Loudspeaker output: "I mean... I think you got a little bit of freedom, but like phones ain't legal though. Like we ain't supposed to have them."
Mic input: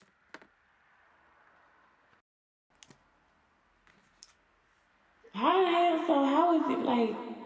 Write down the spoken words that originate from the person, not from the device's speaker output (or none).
How the hell? So how is it like?